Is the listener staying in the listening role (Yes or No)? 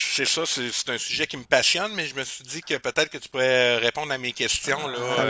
No